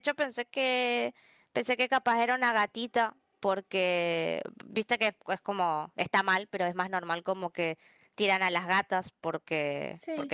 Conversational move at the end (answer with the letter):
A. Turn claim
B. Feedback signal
B